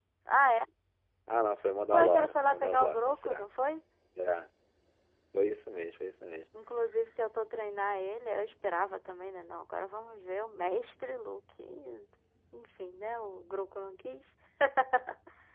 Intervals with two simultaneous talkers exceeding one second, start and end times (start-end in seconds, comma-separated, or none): 1.9-3.5